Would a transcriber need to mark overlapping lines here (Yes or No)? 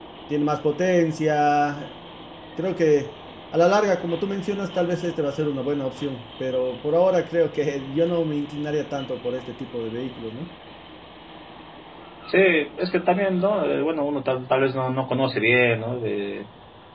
No